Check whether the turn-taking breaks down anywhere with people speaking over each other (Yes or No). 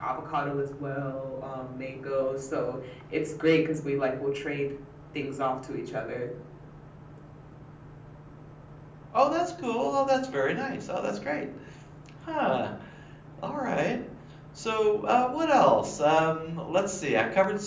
No